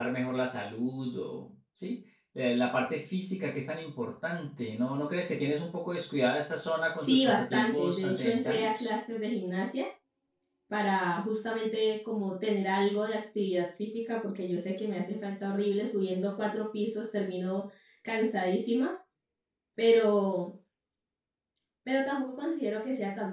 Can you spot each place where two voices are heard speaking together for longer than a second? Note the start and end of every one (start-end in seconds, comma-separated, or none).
7.0-8.9